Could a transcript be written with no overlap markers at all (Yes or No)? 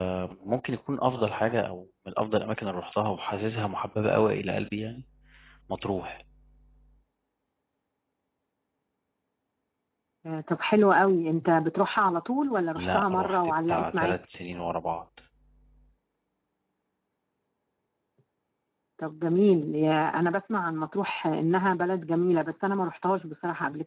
No